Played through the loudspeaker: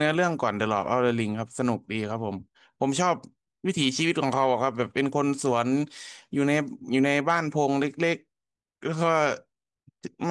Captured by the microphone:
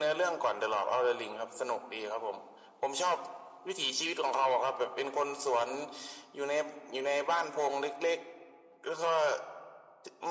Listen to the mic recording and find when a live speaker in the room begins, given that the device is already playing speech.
none

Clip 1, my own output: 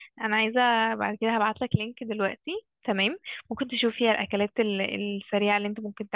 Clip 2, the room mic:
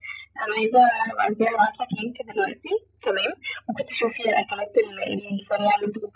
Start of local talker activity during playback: none

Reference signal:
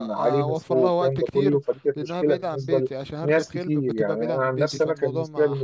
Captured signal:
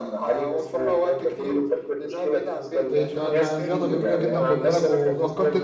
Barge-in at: 2.9 s

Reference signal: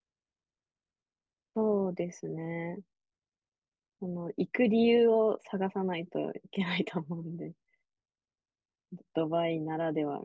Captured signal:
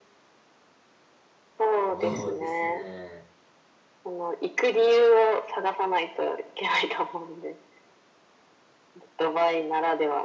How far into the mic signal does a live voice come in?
1.8 s

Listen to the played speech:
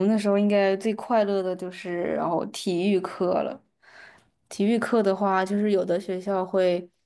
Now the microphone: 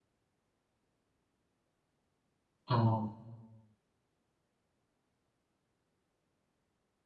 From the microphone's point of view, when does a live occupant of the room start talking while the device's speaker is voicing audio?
2.7 s

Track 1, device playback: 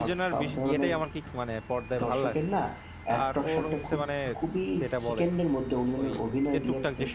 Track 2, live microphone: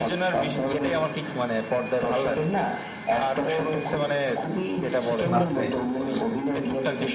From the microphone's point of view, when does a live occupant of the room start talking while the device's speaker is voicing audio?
5.3 s

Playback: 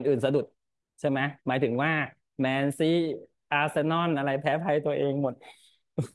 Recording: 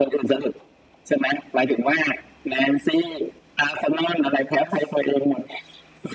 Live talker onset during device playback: none

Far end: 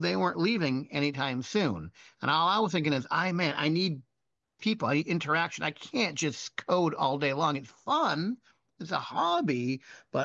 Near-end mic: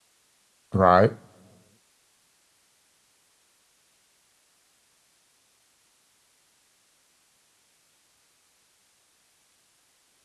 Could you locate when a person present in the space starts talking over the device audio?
0.7 s

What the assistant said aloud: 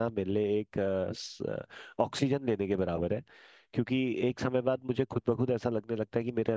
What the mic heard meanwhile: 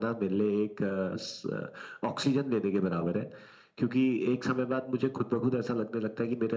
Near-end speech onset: none

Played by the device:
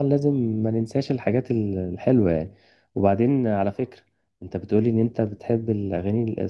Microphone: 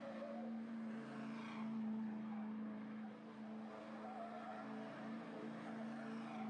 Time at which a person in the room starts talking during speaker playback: none

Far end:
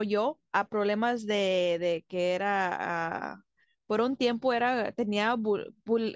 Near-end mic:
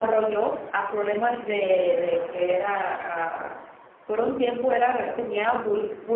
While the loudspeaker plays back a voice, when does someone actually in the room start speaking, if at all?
none

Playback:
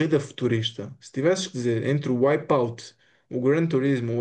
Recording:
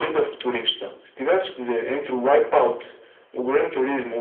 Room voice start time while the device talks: none

